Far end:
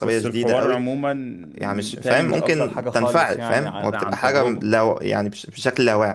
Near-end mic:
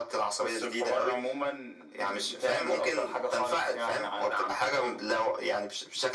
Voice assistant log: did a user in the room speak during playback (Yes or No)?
No